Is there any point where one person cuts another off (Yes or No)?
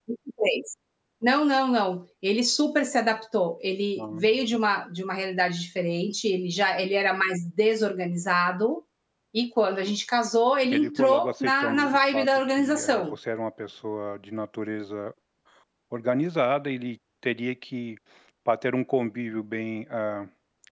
Yes